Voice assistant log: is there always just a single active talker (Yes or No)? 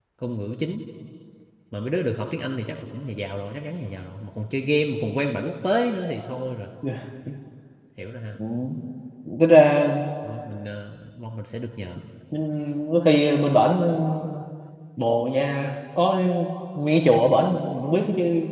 Yes